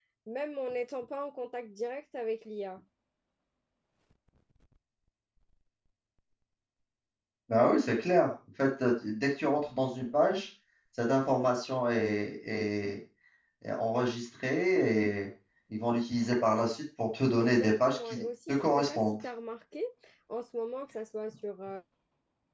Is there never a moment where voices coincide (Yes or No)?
No